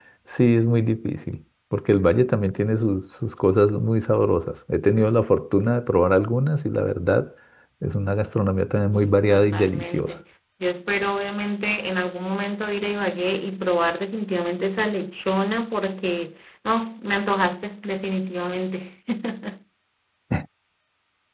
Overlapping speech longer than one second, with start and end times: 8.9-10.1

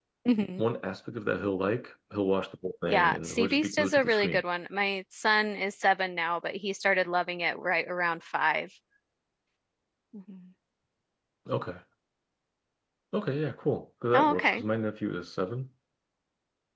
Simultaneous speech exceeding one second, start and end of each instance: 2.9-4.4

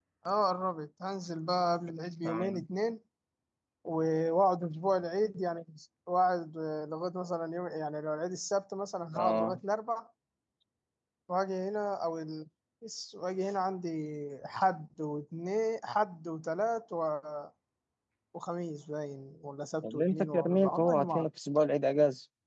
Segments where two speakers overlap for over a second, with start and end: 19.8-21.2

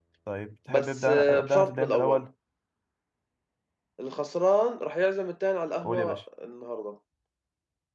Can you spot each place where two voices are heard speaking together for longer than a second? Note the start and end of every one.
0.7-2.2

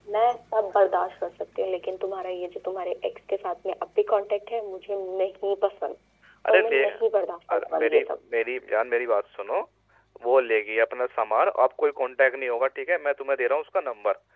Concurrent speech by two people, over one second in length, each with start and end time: 6.5-8.2

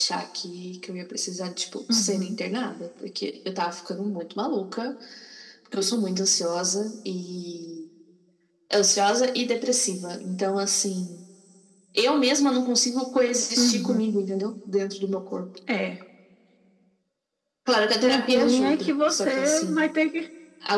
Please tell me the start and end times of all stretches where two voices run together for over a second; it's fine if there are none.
18.0-19.9

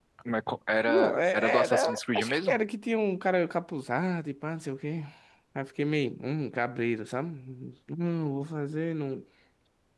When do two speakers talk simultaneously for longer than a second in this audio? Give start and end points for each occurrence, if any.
0.9-2.6

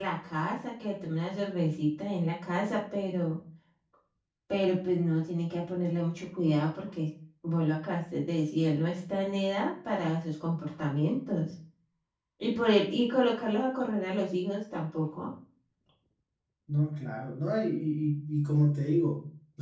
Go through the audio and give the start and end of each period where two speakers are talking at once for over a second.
none

